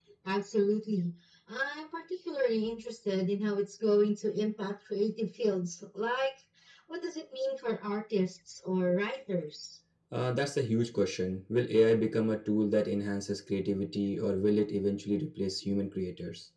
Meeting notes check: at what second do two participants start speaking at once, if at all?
none

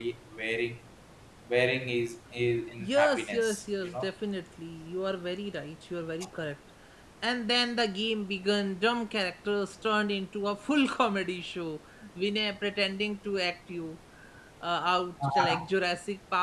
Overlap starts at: 2.8 s

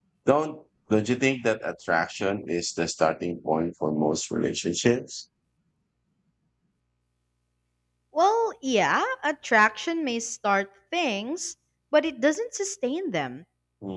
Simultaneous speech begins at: none

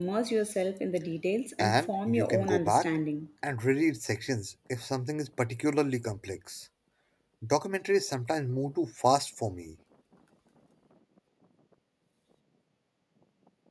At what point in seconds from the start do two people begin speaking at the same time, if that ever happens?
1.6 s

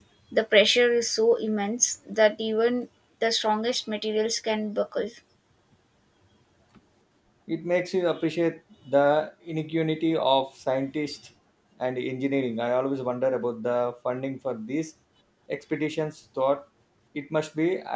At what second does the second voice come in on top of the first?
none

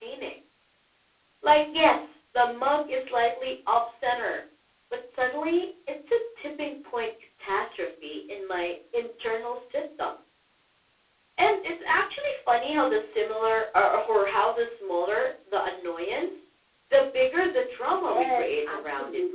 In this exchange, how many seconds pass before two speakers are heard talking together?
17.9 s

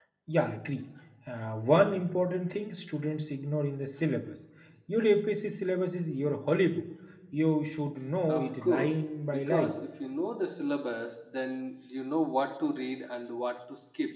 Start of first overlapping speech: 8.3 s

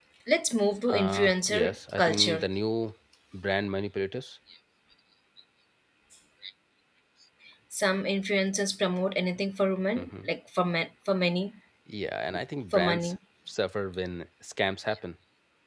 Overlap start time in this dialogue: 0.9 s

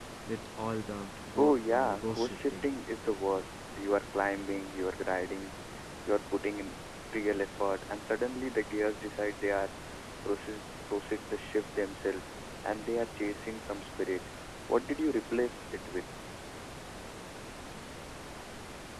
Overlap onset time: 1.4 s

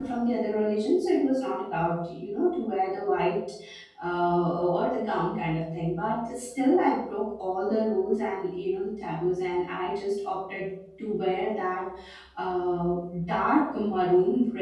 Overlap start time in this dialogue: none

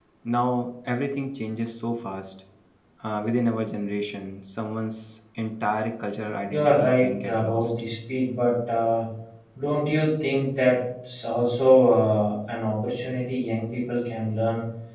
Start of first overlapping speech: 6.5 s

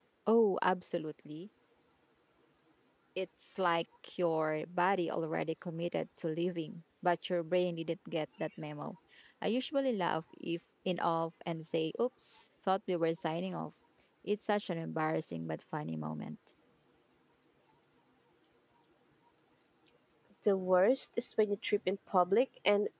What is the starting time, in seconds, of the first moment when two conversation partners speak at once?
none

